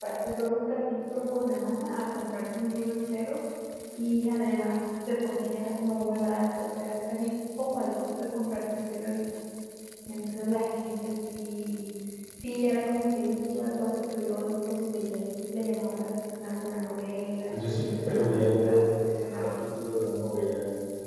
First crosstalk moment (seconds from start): 17.5 s

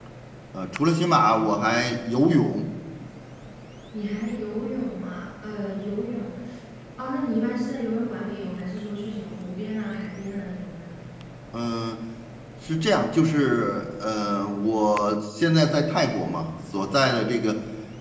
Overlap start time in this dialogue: none

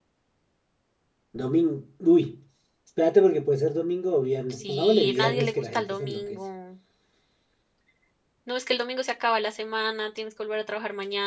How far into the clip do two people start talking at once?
4.5 s

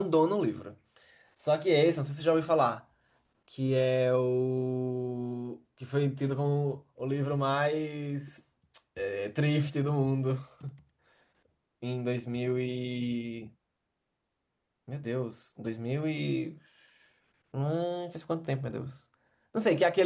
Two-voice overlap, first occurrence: none

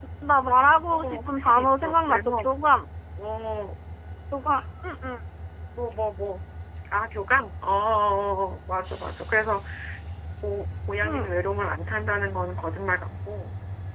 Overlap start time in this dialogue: 0.9 s

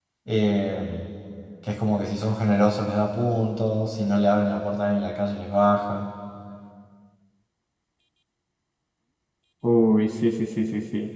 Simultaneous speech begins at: none

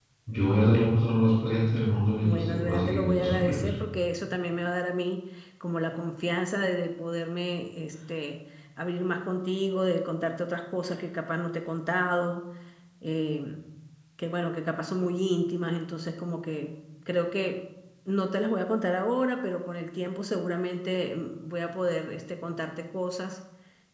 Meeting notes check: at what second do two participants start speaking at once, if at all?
2.2 s

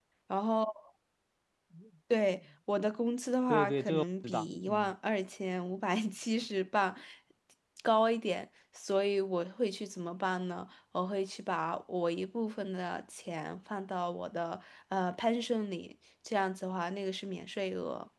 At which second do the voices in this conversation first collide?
3.5 s

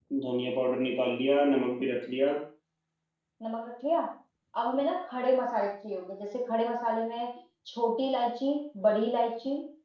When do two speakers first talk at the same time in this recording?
none

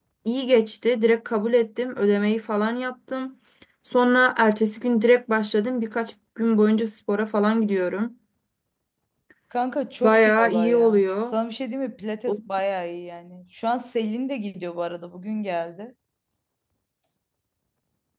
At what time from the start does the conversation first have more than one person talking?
10.0 s

